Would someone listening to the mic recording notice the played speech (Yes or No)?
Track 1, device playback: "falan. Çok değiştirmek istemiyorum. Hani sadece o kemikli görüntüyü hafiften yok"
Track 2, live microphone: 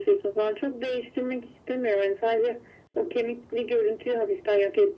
Yes